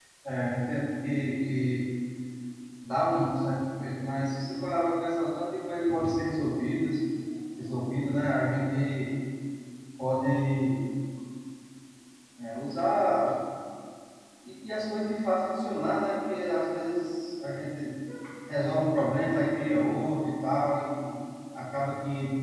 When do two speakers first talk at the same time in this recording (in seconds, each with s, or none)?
none